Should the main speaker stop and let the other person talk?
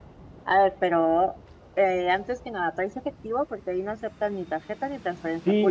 Yes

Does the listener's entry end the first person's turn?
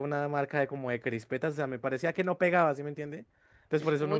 Yes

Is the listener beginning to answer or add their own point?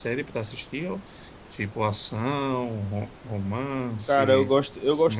Yes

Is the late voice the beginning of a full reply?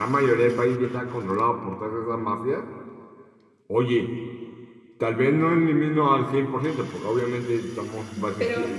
Yes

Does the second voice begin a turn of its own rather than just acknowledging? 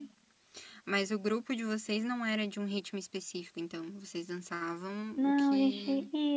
Yes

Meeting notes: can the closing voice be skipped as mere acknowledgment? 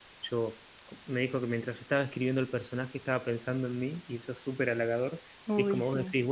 Yes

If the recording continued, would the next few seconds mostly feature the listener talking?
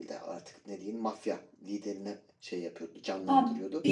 Yes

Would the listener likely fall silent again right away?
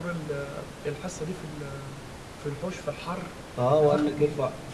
No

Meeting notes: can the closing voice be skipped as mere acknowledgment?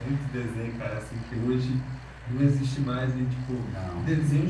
Yes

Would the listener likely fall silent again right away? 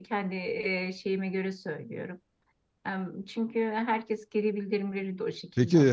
No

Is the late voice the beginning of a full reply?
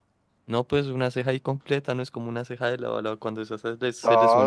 Yes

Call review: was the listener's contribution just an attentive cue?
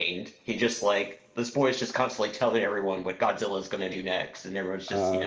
Yes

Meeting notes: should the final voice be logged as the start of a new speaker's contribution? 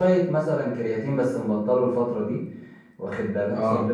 No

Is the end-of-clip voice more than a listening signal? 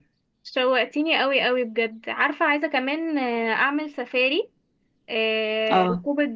No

